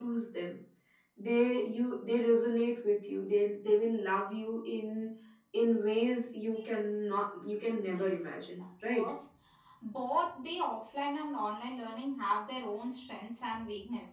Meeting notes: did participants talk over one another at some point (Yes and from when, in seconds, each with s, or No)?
Yes, from 7.7 s